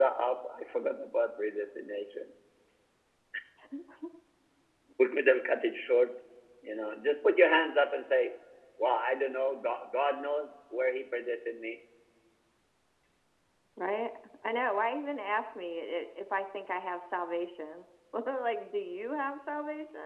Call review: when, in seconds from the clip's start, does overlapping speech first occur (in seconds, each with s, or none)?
none